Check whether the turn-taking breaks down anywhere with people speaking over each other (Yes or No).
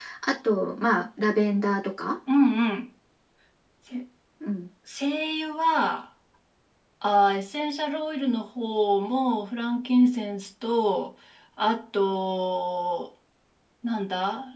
No